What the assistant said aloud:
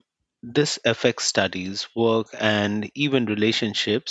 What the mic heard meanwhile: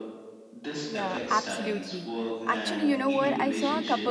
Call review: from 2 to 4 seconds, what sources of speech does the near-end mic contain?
both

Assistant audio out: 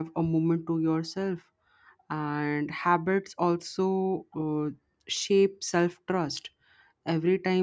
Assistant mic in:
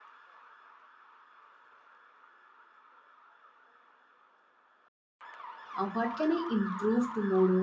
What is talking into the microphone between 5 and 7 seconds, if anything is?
user only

